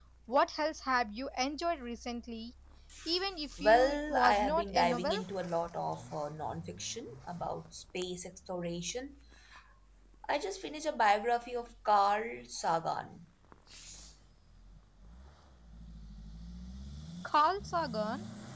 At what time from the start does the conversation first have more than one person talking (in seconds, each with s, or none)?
3.6 s